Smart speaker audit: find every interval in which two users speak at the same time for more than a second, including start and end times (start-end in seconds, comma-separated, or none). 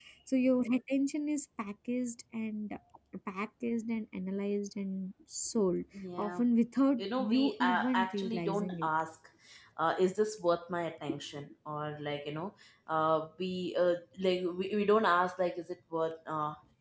7.0-8.9